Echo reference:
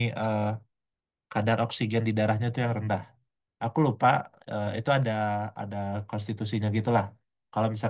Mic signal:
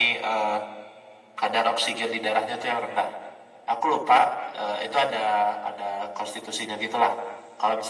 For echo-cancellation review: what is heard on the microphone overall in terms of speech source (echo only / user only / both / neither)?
echo only